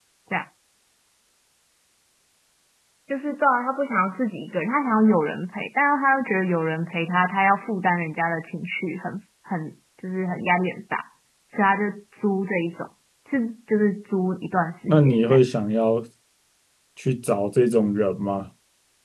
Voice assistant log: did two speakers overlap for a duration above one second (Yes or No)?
No